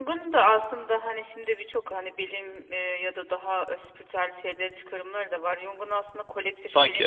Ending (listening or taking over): listening